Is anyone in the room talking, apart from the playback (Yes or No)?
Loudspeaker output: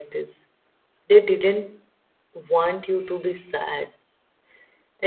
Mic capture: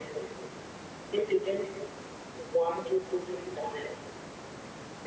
No